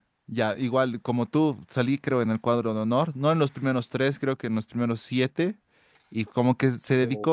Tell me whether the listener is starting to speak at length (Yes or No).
No